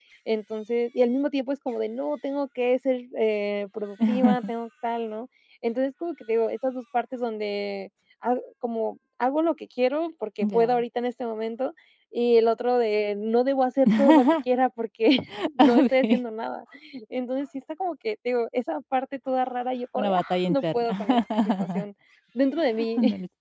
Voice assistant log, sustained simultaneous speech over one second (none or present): present